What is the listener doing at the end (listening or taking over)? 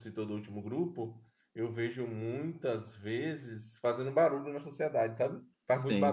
taking over